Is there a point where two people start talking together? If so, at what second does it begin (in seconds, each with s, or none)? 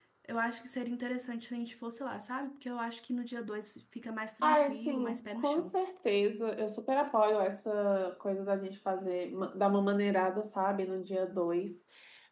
4.4 s